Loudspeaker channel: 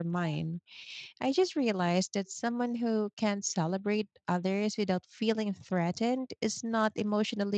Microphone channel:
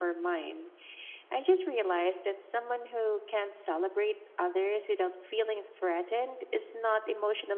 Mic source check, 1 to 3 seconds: echo only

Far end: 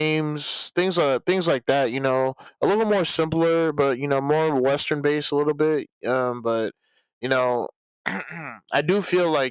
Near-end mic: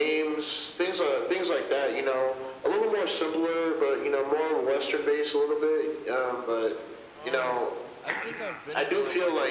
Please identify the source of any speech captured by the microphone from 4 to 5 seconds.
echo only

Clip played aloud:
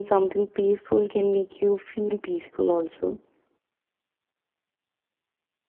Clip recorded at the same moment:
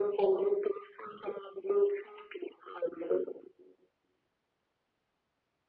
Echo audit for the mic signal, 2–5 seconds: echo only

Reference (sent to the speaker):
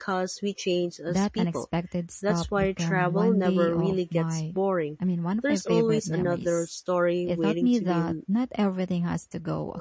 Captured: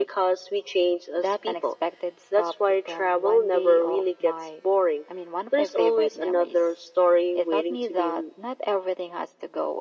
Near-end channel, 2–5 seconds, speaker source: echo only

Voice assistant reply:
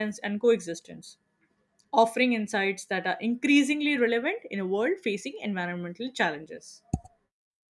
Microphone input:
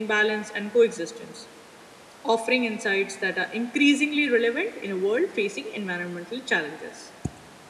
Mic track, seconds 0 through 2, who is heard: echo only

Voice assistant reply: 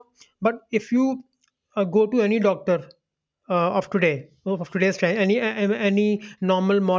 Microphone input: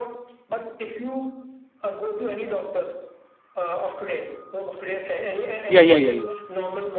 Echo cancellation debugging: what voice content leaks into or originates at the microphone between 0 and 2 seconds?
echo only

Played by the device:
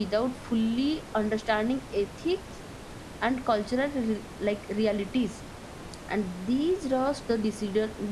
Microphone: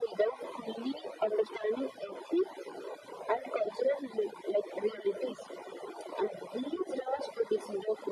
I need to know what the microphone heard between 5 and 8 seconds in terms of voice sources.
echo only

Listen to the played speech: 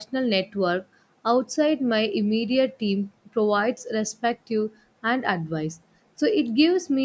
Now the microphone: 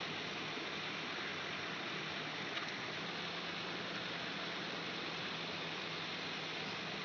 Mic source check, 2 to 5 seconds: neither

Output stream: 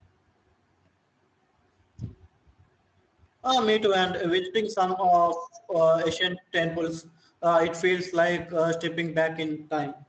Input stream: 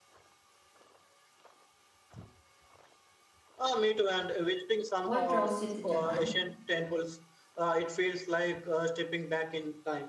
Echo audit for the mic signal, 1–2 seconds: neither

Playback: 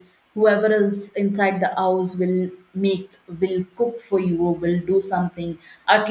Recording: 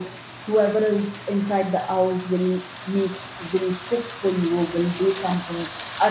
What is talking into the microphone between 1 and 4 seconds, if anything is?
echo only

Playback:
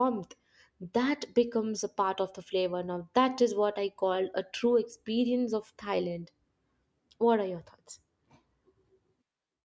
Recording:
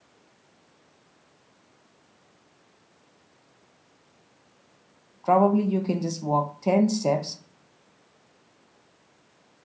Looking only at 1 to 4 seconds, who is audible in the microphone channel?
neither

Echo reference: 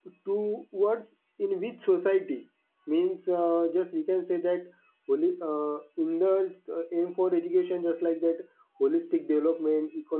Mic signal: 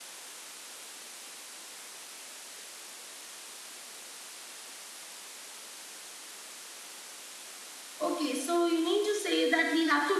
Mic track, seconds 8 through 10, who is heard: user only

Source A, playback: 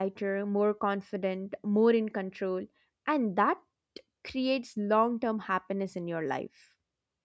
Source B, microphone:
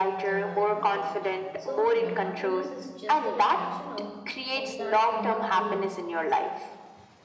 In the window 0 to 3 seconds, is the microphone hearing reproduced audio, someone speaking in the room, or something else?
both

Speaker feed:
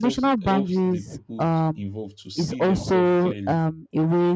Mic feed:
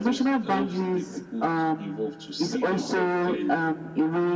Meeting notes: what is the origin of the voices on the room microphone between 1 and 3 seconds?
echo only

